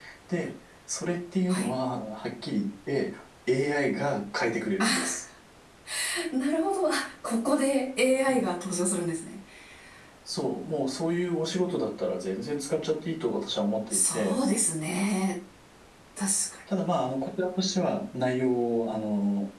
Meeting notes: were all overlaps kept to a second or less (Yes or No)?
Yes